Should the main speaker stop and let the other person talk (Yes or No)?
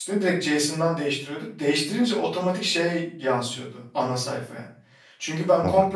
No